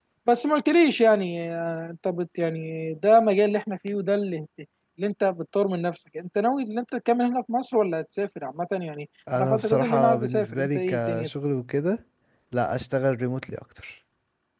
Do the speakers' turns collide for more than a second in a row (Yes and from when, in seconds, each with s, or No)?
Yes, from 9.3 s